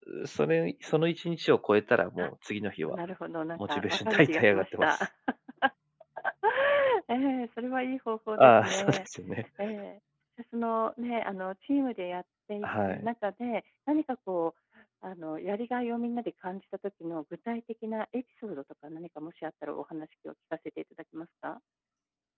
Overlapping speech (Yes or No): Yes